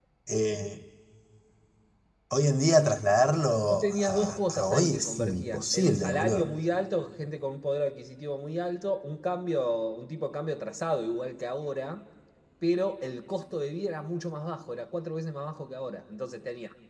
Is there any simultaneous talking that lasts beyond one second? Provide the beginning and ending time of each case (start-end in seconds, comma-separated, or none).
3.7-6.5